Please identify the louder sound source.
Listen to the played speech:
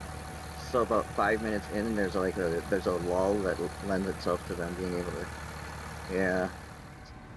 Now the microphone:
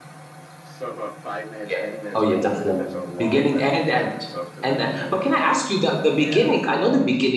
user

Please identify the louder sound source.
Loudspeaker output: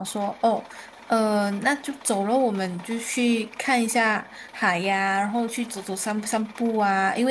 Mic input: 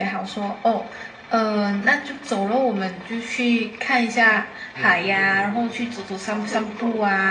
echo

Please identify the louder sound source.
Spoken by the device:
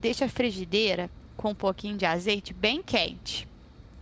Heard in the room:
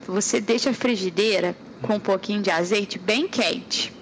echo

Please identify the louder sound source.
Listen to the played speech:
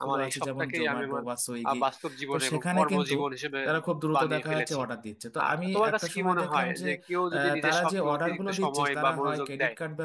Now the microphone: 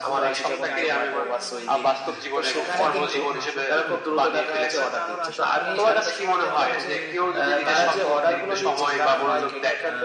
echo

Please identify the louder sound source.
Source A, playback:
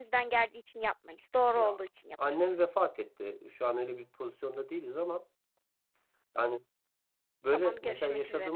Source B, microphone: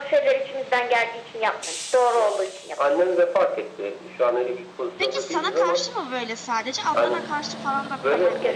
echo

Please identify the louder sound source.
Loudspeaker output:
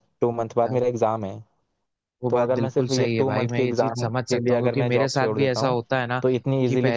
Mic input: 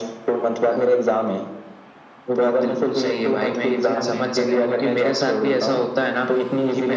echo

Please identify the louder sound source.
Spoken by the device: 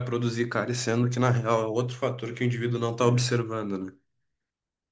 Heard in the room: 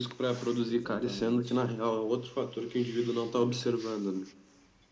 echo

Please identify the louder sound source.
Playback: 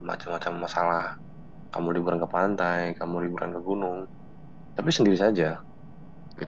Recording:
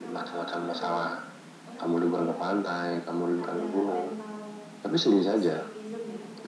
echo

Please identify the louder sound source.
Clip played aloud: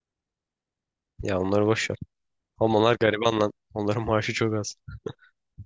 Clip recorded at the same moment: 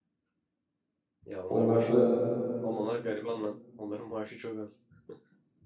user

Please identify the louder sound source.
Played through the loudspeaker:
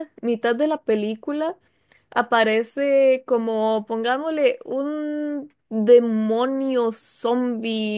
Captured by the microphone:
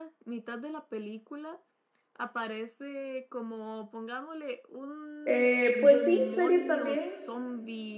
user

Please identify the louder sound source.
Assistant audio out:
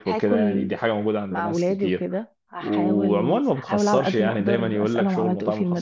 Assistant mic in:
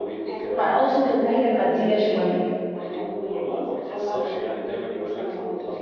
user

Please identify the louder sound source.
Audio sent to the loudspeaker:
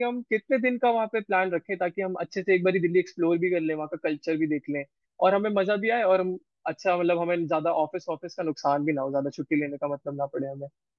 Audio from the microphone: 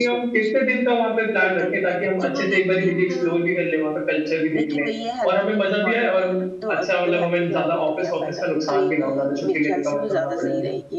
echo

